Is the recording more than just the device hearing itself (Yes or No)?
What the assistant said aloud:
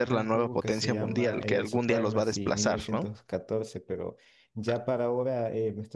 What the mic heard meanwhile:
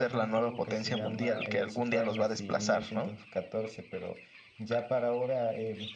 No